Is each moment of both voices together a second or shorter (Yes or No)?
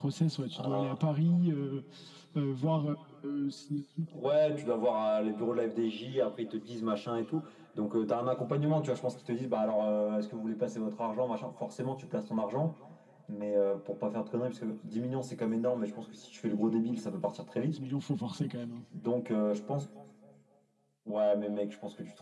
Yes